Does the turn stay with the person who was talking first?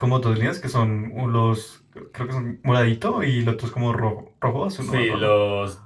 No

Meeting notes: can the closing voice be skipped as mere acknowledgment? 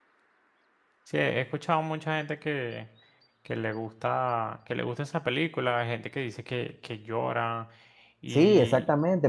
No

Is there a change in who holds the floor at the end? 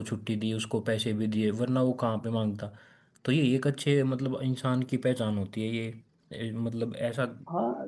Yes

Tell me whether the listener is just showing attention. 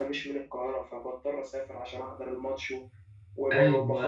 No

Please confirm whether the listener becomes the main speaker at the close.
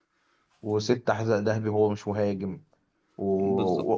No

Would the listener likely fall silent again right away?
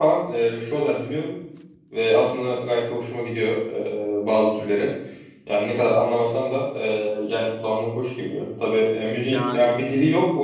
Yes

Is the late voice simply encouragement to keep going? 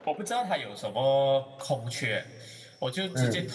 Yes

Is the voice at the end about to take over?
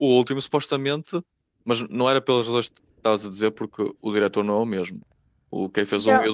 No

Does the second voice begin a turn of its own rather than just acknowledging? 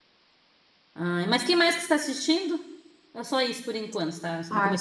Yes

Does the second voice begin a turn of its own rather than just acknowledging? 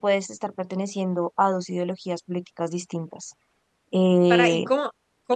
Yes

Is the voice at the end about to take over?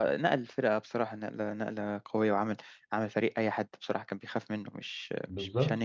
Yes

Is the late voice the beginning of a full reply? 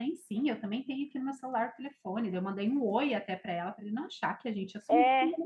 Yes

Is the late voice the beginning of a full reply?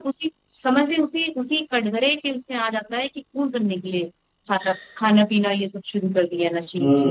Yes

